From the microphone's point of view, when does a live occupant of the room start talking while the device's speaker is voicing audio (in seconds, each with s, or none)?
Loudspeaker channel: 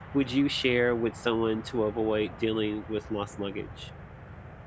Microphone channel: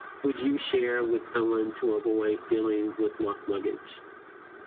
none